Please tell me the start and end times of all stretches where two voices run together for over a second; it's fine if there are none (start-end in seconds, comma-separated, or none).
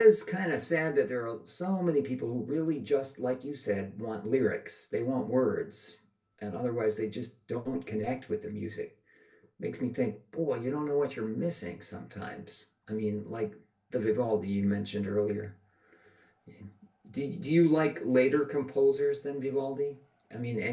none